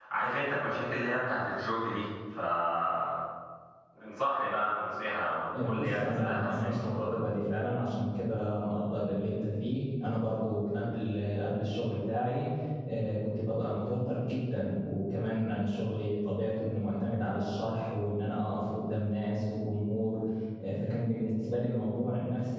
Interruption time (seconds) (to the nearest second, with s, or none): 5 s